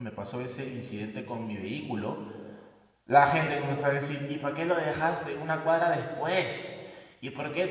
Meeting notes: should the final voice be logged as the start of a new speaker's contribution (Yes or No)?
No